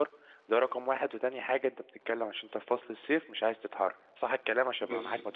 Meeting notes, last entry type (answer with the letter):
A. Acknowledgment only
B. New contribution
B